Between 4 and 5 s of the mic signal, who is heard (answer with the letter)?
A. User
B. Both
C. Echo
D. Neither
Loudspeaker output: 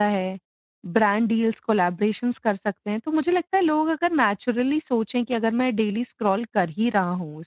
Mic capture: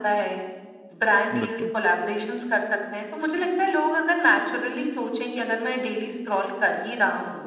C